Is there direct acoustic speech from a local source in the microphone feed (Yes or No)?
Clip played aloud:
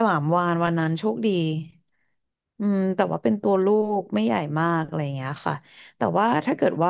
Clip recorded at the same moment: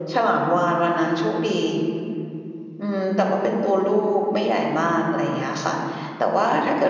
No